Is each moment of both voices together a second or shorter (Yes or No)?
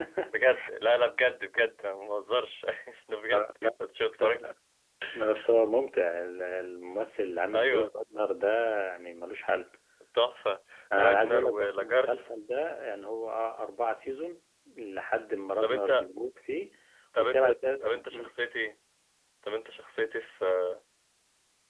No